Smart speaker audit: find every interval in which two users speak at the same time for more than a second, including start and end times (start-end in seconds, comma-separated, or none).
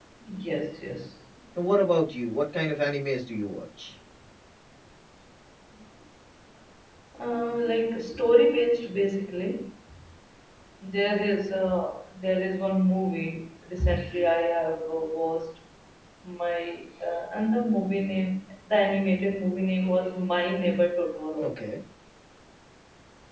none